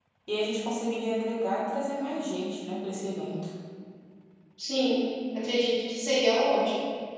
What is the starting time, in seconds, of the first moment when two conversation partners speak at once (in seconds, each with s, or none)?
none